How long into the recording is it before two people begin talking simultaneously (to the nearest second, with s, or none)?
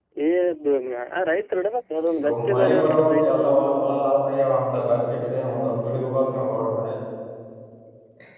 2 s